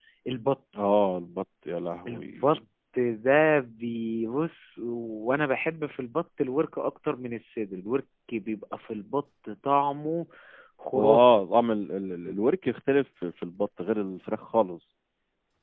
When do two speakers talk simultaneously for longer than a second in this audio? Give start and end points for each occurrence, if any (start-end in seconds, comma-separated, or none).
none